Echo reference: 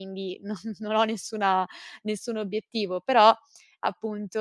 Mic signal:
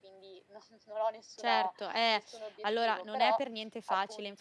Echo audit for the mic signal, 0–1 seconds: echo only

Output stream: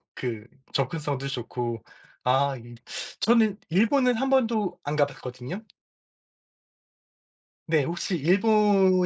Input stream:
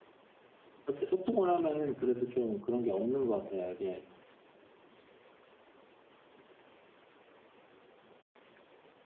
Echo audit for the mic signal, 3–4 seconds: user only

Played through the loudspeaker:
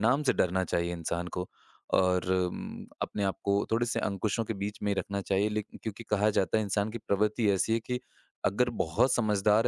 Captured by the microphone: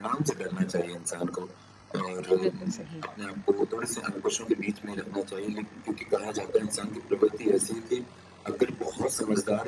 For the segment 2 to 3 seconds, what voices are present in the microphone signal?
both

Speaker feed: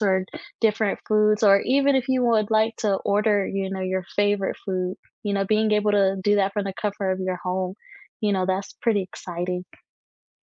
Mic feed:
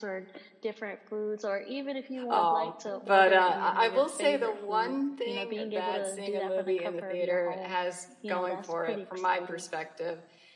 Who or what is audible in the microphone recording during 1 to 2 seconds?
echo only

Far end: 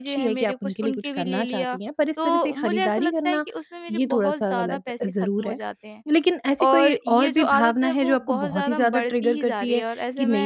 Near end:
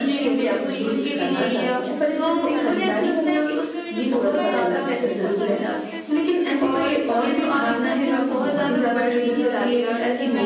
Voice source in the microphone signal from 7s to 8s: both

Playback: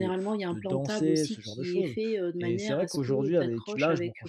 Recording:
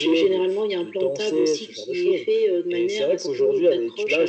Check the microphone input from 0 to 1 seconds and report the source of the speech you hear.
echo only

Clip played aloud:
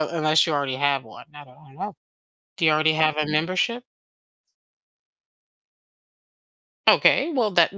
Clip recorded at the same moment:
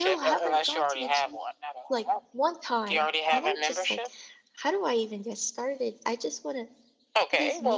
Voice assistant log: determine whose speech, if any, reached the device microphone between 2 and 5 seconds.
both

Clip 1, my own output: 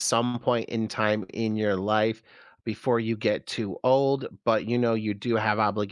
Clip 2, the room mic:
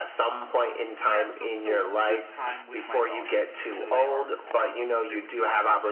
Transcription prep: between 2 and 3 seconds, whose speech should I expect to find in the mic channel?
both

